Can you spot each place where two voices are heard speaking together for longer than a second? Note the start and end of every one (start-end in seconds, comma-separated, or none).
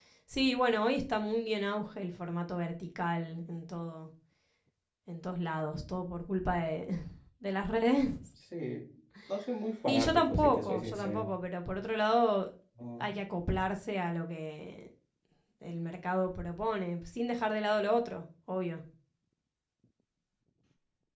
9.9-11.3